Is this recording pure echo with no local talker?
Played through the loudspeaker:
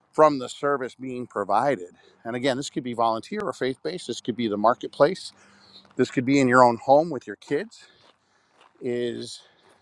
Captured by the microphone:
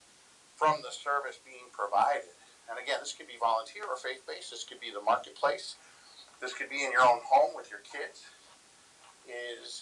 Yes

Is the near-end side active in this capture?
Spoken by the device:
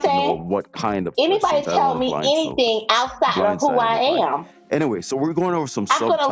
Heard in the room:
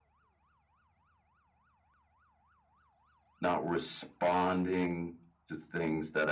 Yes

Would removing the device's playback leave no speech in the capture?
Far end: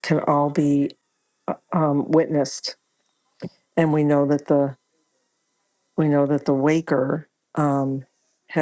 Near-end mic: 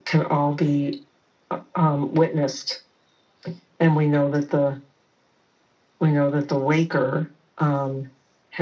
Yes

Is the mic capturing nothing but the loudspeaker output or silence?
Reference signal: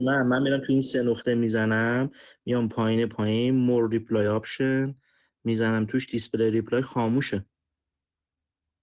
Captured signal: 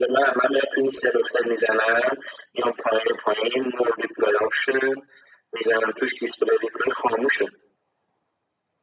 Yes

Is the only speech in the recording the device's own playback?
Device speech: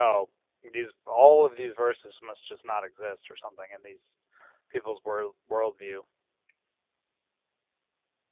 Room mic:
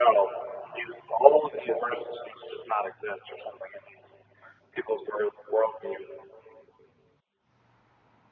Yes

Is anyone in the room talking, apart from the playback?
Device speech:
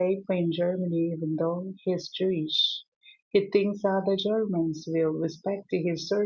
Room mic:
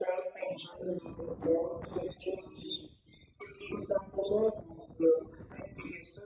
No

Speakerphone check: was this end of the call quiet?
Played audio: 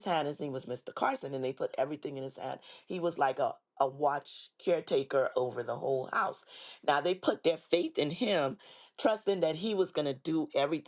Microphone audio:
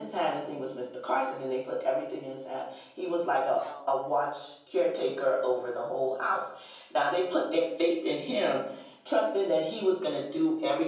No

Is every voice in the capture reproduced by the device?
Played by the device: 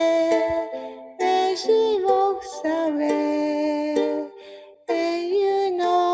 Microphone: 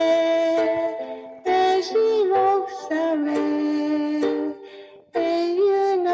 Yes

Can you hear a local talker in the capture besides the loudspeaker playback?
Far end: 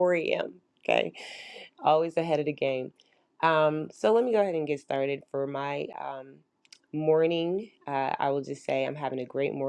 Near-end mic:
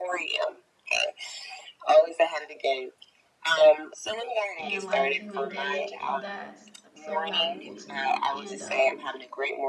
Yes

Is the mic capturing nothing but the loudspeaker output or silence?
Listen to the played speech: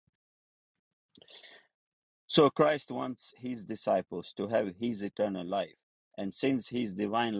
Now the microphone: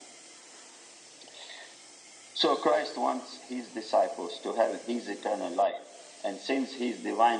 Yes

